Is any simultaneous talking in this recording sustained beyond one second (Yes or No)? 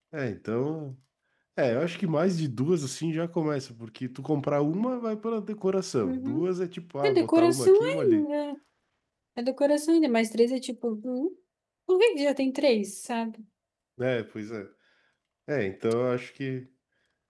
Yes